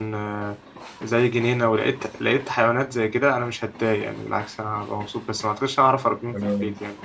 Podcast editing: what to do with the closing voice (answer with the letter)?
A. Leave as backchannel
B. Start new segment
B